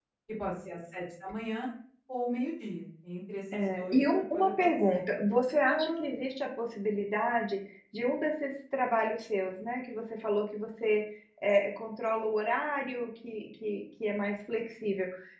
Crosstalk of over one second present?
Yes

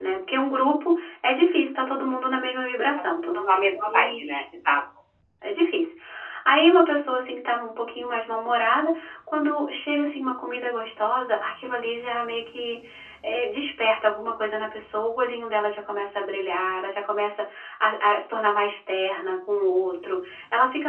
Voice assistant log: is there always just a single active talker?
No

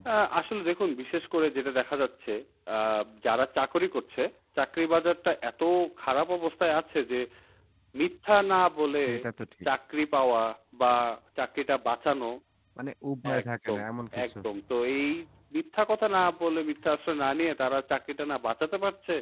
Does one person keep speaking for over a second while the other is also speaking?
No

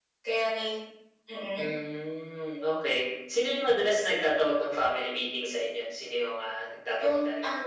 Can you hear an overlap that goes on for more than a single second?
No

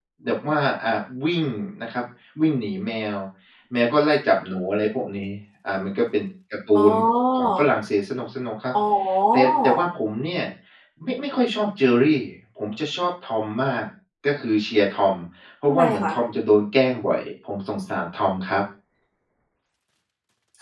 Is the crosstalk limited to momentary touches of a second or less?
Yes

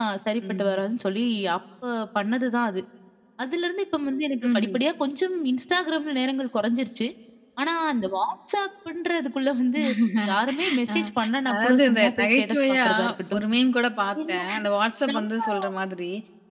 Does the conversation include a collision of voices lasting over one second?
Yes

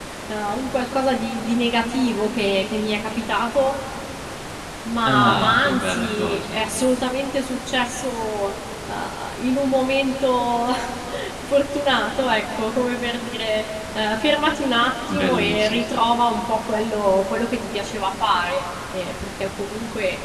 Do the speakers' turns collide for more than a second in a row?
Yes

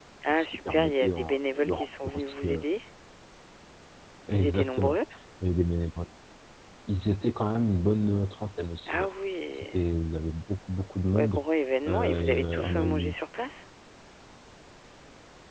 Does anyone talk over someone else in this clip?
Yes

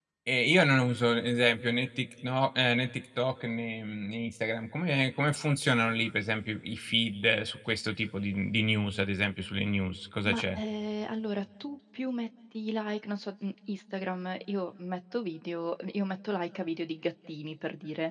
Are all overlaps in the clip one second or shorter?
Yes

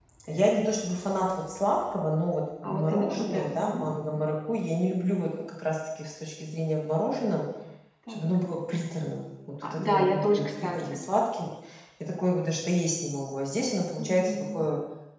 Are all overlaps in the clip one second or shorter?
No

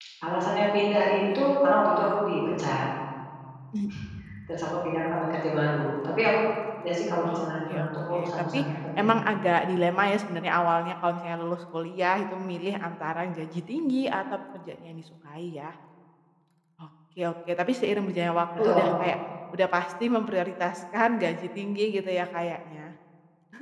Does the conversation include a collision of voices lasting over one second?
Yes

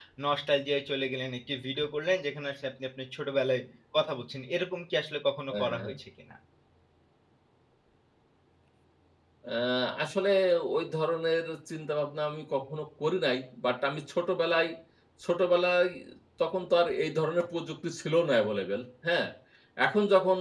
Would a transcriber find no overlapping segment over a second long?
Yes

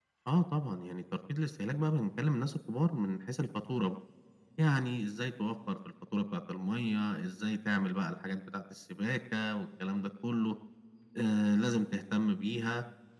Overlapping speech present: No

